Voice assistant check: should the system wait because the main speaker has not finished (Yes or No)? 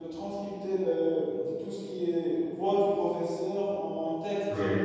Yes